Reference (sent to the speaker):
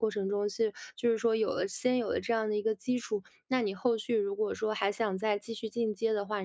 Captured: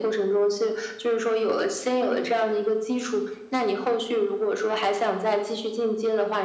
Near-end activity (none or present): present